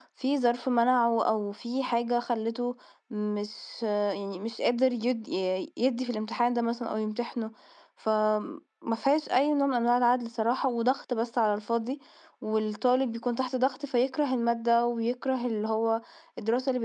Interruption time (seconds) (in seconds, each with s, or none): none